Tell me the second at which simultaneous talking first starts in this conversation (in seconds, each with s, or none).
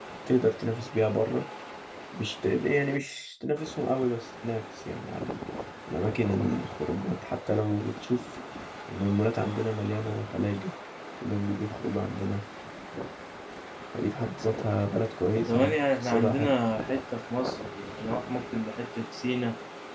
15.3 s